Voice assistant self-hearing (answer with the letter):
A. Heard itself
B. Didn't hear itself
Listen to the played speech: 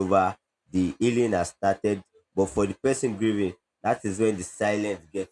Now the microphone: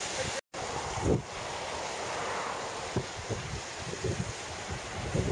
B